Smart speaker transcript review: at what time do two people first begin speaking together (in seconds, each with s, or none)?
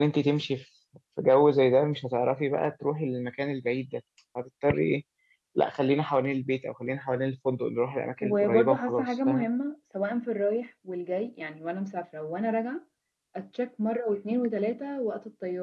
8.2 s